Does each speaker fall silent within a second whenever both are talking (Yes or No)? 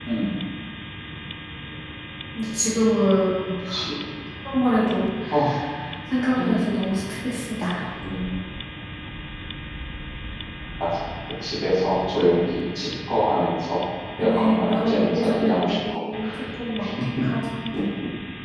No